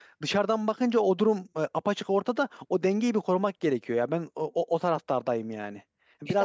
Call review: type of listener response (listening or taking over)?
listening